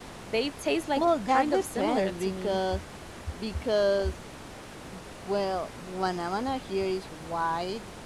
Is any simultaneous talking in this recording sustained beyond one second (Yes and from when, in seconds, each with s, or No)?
Yes, from 1.0 s